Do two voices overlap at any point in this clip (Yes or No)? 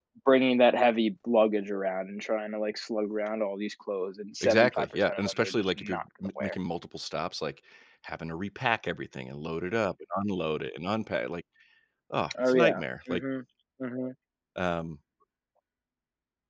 Yes